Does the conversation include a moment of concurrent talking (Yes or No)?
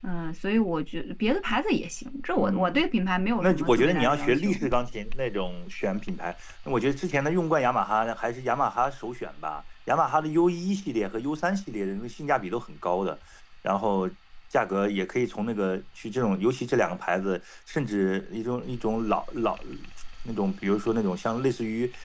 Yes